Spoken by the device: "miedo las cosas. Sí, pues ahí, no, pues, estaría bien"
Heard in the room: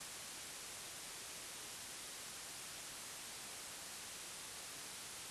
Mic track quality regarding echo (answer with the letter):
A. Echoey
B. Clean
B